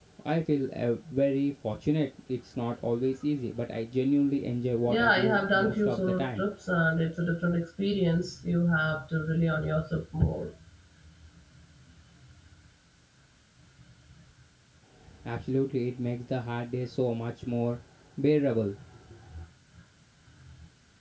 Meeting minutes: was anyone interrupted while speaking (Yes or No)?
Yes